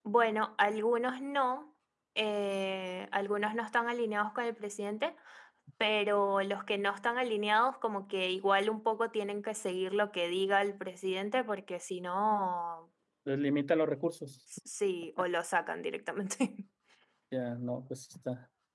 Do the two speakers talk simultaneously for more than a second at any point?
No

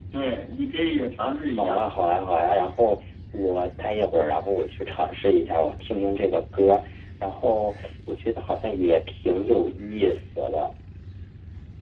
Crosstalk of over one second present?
No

